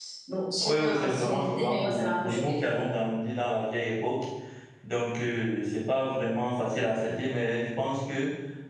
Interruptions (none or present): present